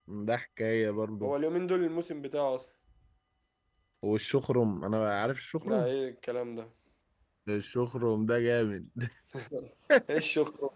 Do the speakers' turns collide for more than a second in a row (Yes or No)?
No